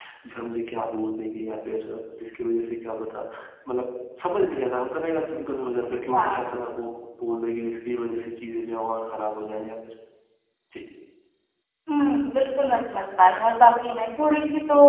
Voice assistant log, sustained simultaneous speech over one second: none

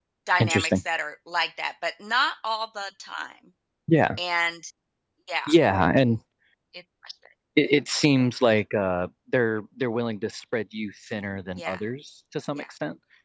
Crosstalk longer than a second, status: none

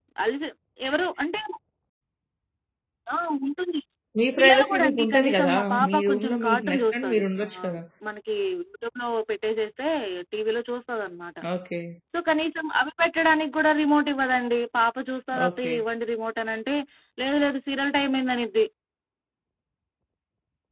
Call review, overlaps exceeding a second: present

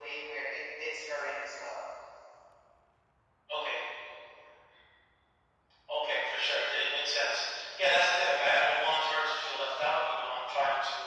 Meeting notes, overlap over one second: none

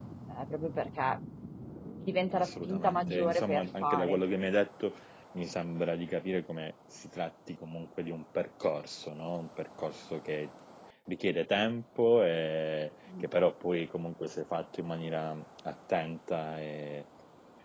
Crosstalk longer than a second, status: present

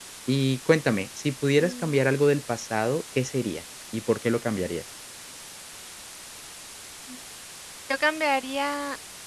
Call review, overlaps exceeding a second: none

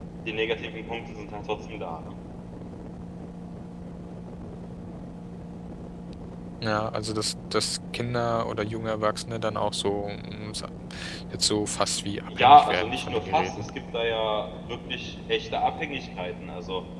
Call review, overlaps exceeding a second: present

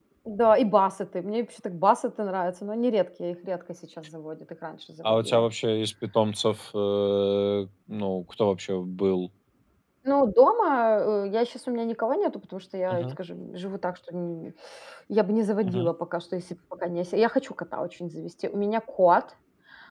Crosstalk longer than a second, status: none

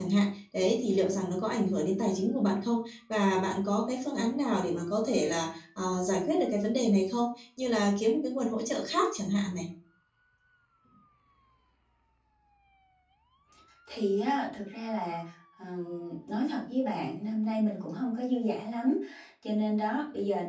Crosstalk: none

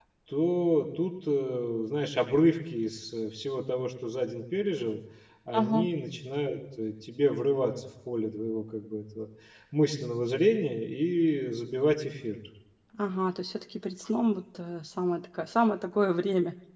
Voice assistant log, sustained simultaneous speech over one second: none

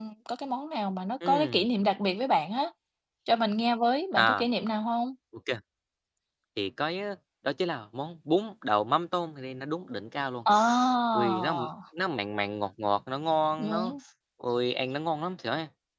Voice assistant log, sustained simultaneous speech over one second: none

